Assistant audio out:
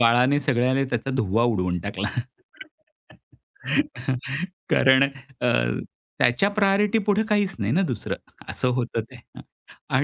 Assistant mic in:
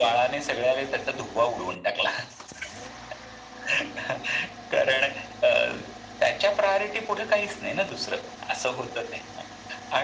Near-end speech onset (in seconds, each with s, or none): none